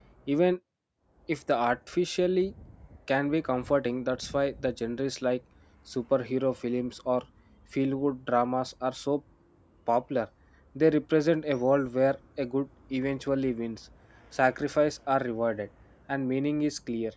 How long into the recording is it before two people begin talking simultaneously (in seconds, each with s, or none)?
none